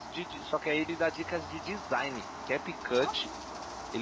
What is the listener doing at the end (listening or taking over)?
listening